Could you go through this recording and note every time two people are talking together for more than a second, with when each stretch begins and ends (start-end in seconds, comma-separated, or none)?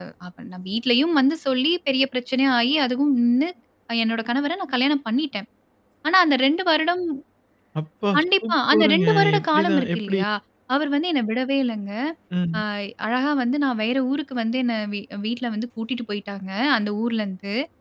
8.2-10.2